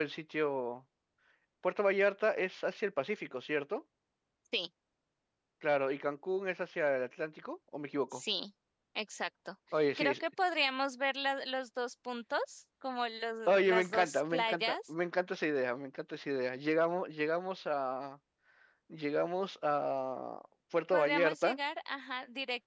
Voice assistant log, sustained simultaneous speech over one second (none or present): present